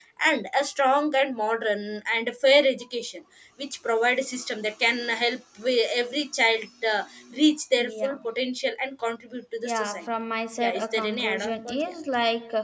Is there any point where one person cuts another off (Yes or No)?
Yes